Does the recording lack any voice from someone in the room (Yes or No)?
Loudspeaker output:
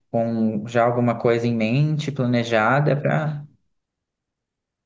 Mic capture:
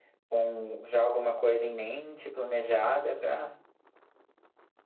Yes